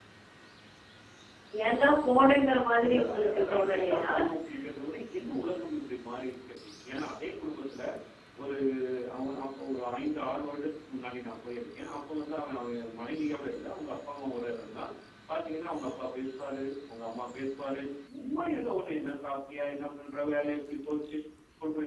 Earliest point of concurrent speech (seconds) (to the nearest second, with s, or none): 3 s